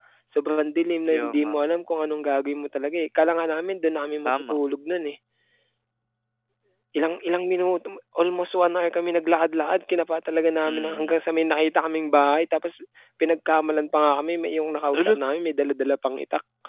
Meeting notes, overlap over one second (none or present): none